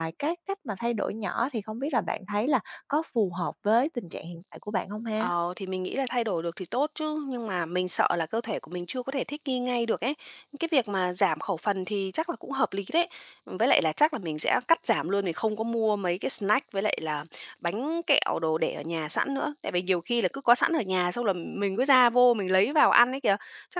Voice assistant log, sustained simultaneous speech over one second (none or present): none